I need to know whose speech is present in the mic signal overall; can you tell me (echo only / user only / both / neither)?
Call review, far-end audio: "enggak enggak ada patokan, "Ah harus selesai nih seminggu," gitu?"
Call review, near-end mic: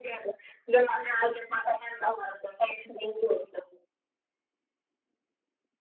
echo only